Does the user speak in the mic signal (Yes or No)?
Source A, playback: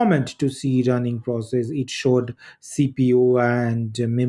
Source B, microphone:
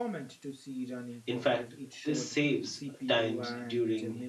Yes